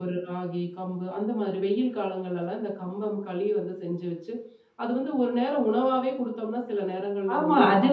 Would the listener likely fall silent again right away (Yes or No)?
No